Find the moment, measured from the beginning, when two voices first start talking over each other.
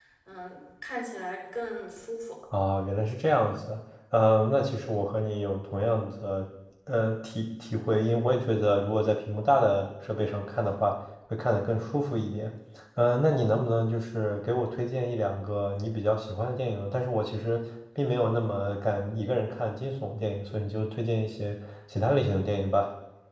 none

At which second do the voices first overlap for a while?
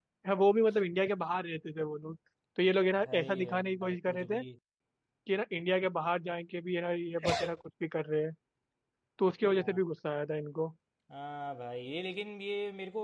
3.1 s

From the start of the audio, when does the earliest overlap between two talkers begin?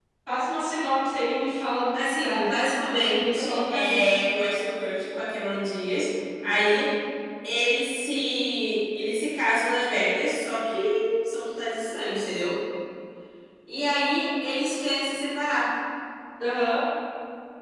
1.9 s

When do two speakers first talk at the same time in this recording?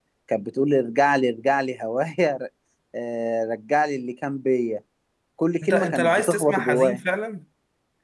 5.6 s

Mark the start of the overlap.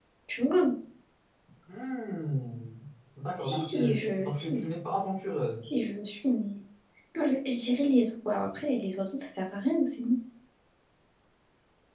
3.4 s

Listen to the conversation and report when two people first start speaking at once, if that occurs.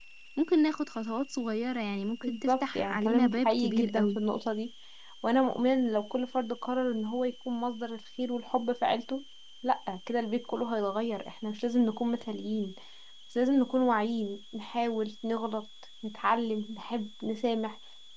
2.2 s

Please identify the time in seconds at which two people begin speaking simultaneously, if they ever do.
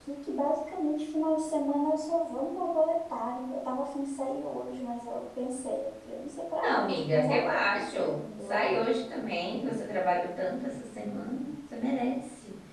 6.6 s

